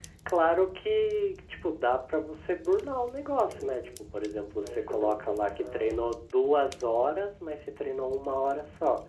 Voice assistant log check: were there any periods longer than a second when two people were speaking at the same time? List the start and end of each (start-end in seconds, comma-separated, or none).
4.6-6.0